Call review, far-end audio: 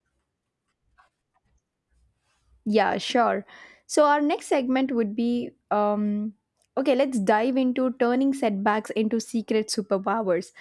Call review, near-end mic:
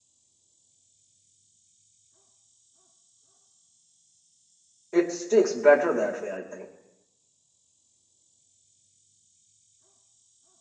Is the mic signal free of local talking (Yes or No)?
No